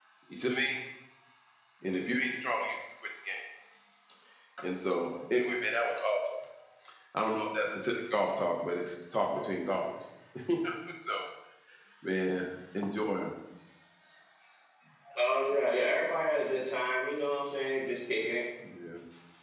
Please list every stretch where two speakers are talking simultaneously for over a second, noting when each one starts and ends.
none

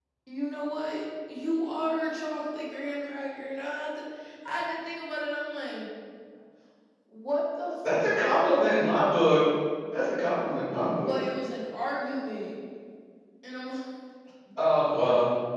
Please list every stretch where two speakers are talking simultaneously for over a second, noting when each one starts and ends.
none

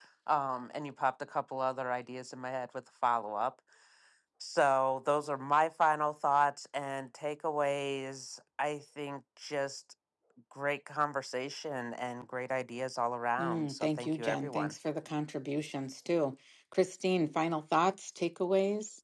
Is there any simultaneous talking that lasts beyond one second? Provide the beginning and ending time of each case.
13.4-14.7

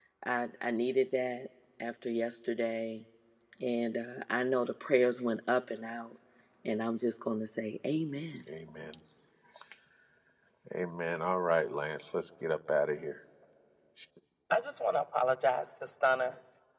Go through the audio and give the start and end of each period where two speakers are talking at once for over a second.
none

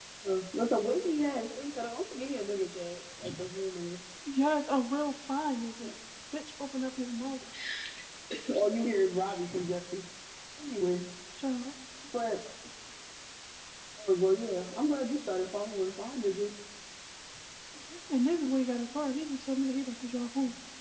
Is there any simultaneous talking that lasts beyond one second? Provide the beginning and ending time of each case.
none

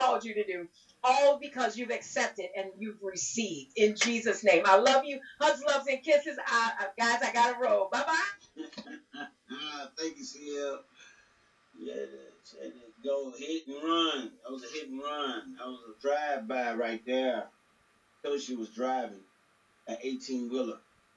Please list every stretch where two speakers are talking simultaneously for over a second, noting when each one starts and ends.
none

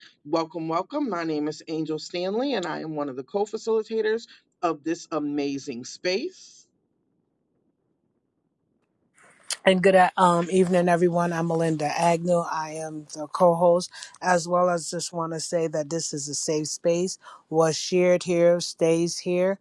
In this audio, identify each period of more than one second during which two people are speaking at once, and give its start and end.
none

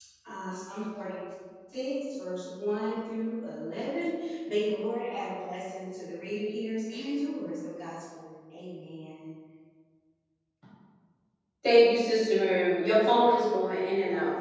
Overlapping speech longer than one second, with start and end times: none

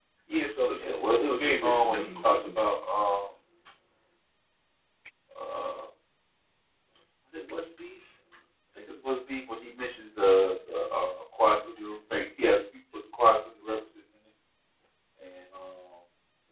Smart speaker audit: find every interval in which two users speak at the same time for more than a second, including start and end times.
0.8-2.8

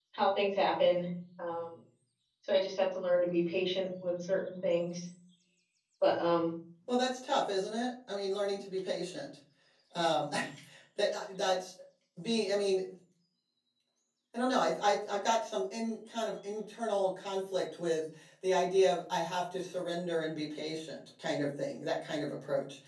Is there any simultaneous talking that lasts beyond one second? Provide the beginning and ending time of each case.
none

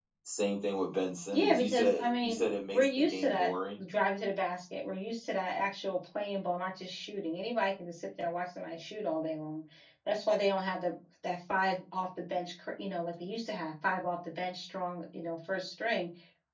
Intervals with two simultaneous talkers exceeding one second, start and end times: 1.3-3.5

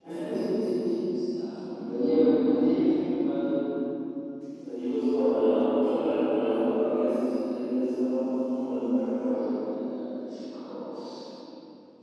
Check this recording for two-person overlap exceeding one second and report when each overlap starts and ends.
none

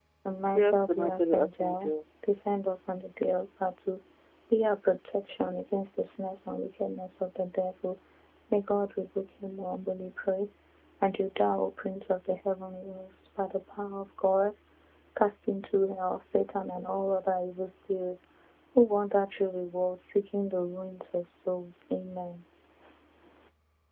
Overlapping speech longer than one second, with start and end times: 0.6-1.9

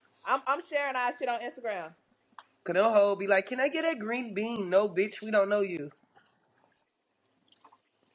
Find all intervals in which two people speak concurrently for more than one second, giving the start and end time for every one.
none

